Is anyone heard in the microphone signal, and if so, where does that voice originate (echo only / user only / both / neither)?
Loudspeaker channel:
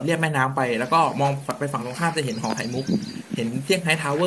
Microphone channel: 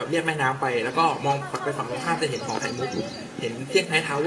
both